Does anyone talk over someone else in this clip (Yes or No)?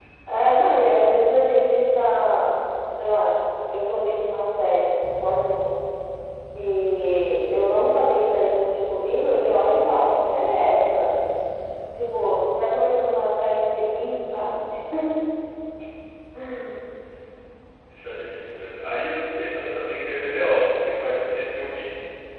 No